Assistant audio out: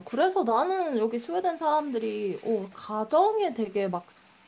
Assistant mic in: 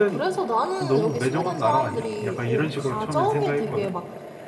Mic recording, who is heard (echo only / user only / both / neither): both